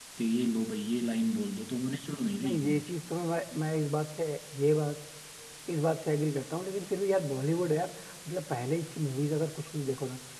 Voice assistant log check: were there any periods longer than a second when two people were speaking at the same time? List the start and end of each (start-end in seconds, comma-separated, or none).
none